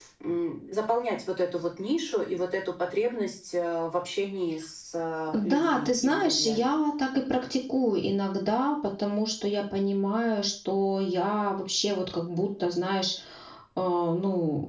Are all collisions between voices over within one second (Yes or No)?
No